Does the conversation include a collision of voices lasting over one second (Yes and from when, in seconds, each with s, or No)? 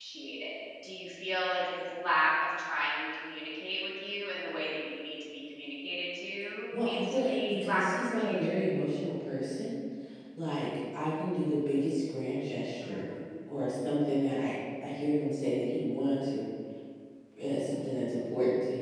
Yes, from 6.7 s